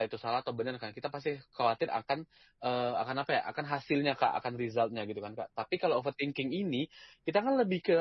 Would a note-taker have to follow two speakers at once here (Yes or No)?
No